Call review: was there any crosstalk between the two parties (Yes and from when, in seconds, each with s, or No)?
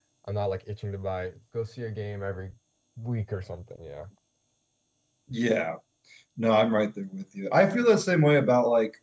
No